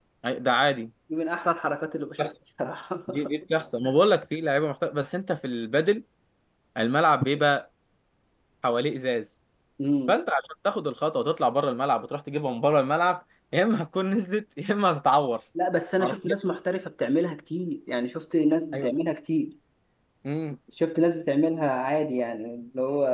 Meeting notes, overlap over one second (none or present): none